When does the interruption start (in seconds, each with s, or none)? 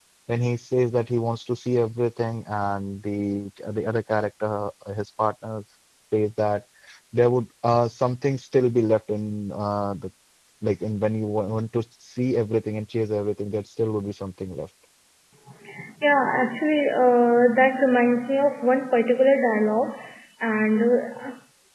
none